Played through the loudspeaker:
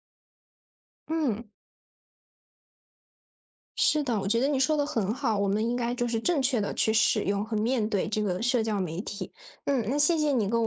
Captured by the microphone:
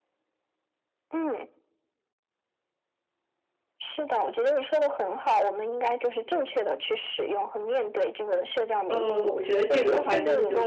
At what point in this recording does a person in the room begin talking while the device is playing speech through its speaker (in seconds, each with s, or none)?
8.9 s